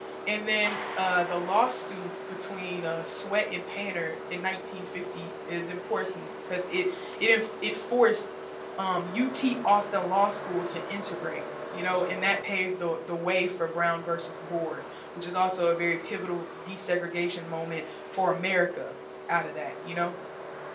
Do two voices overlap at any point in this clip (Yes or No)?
No